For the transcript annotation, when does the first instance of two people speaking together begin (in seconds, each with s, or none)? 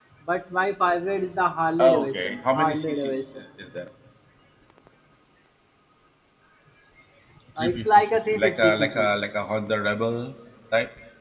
1.8 s